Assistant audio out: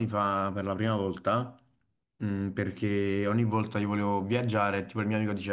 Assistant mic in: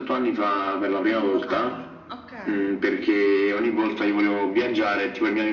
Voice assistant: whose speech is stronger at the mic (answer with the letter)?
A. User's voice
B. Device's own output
B